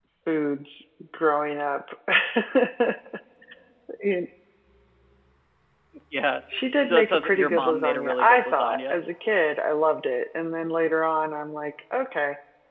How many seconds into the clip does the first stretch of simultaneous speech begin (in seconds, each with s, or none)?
6.8 s